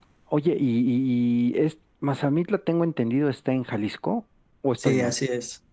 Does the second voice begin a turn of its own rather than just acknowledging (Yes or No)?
Yes